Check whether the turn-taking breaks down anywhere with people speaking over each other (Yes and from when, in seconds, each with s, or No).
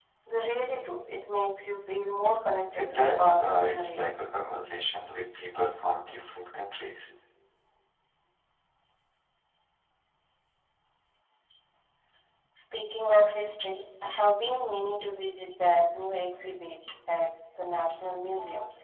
Yes, from 2.8 s